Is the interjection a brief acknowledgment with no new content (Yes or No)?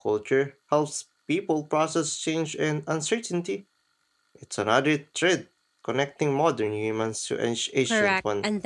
No